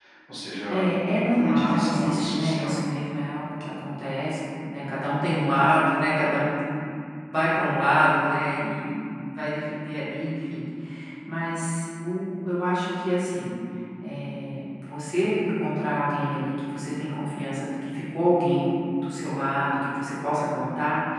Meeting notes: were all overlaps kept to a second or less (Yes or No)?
No